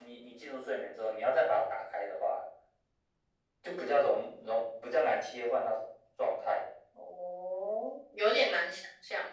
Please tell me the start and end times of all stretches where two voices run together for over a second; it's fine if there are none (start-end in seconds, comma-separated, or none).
none